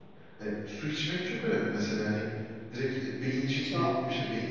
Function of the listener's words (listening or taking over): listening